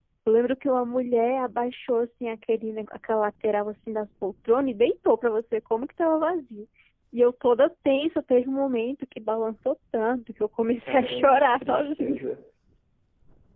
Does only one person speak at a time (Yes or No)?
No